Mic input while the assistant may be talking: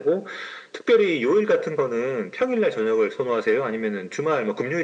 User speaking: No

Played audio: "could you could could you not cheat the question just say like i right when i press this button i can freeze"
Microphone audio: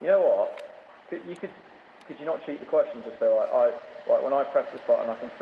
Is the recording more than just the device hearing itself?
No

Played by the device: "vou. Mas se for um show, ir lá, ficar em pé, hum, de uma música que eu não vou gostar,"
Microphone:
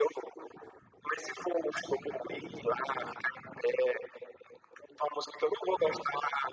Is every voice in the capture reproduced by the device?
Yes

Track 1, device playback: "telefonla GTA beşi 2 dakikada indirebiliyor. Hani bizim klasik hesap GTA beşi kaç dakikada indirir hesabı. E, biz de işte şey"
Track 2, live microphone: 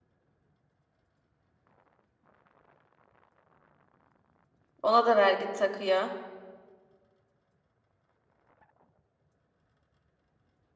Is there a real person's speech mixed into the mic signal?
Yes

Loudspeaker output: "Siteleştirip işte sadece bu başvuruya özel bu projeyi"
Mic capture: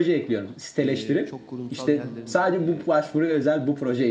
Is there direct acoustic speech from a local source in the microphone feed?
Yes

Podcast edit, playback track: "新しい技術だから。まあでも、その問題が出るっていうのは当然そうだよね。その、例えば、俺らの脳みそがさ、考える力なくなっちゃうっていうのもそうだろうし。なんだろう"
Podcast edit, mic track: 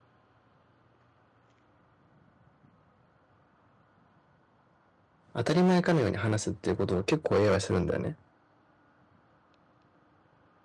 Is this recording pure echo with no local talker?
No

